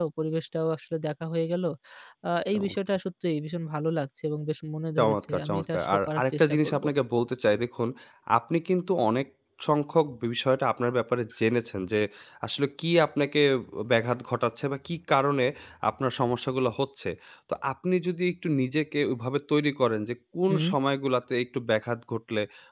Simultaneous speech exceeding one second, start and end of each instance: 5.0-6.8

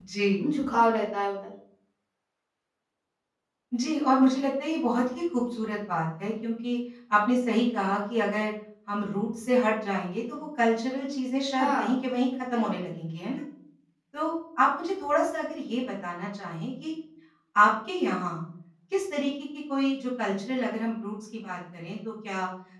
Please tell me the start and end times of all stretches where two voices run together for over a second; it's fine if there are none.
none

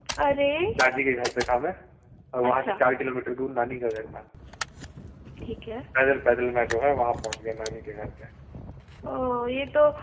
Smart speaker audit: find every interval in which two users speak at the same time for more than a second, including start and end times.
none

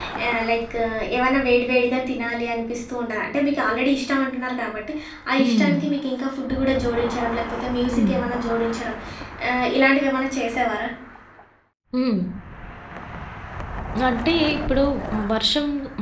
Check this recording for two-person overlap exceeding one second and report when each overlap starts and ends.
none

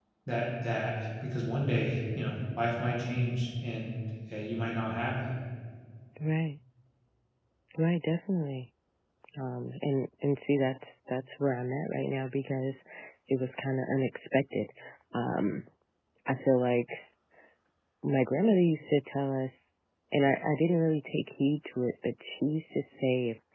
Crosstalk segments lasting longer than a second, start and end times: none

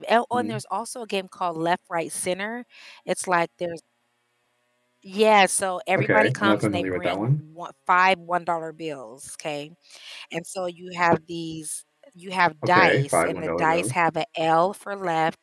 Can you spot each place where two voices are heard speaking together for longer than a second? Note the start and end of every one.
6.0-7.3, 12.7-13.9

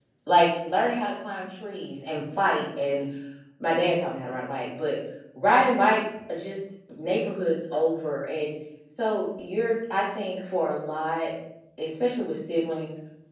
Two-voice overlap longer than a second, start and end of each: none

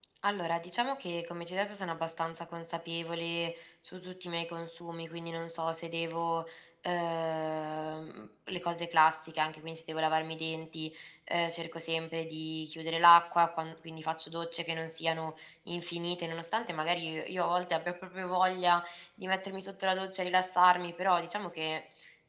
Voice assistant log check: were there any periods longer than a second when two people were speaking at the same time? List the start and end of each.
none

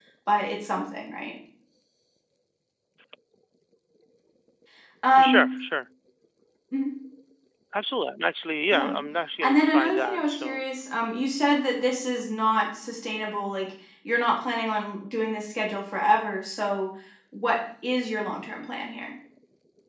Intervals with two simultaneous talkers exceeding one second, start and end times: 9.4-10.6

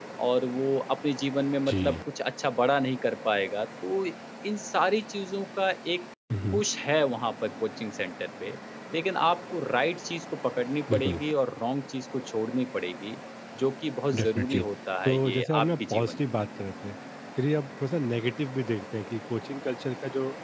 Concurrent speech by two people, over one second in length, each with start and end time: 15.1-16.4

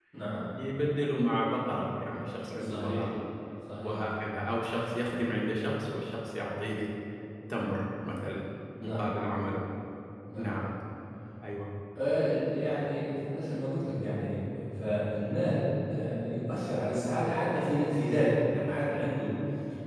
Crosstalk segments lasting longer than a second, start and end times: none

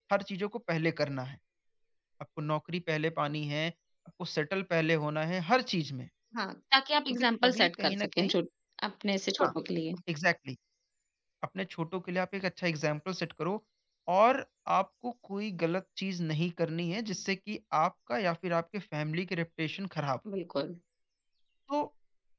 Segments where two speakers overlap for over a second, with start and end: 7.1-8.3

